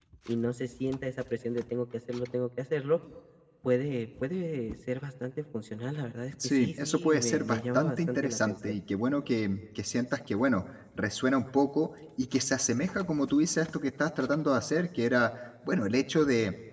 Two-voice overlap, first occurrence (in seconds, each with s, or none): 6.4 s